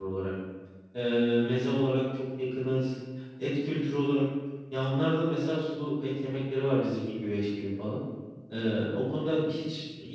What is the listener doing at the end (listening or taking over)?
listening